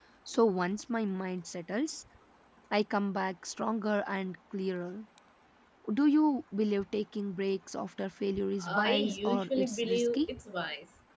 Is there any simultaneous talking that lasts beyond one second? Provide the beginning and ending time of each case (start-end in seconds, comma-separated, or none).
8.6-10.3